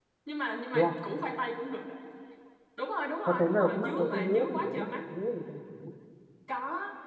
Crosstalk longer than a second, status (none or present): present